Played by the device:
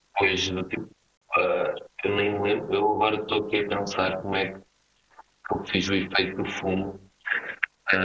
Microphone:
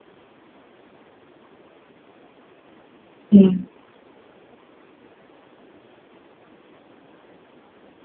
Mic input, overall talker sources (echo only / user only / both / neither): user only